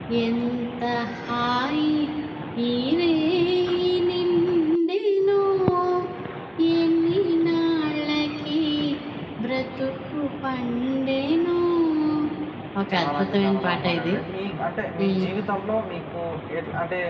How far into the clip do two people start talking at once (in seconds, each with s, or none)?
12.9 s